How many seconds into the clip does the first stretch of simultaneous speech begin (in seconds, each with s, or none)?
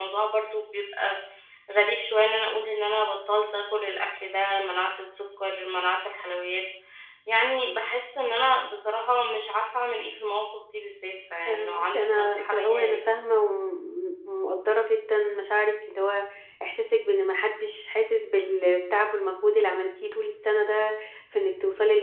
11.5 s